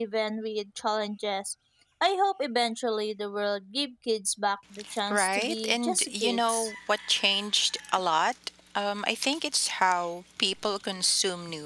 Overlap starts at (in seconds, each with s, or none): 5.1 s